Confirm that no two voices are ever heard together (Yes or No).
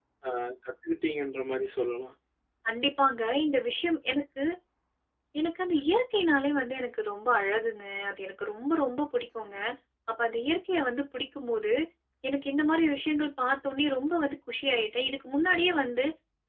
Yes